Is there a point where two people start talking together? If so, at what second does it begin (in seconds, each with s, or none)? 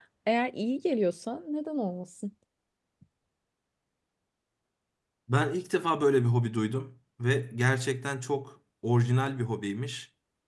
none